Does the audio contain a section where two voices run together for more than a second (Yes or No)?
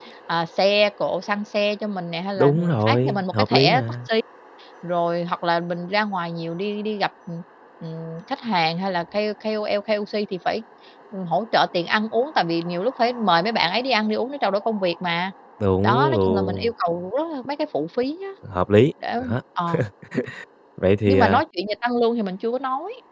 Yes